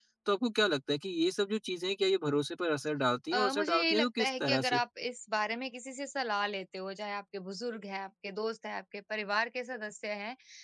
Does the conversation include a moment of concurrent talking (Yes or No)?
Yes